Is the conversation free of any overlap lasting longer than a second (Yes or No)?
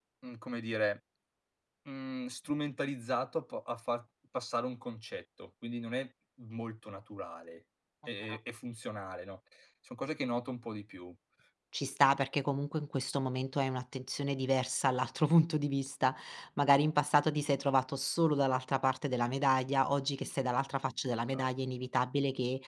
Yes